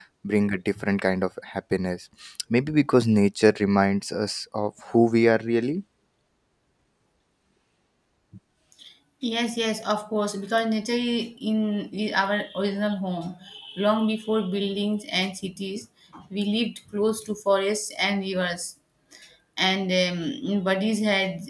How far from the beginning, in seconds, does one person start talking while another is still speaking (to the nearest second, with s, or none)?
none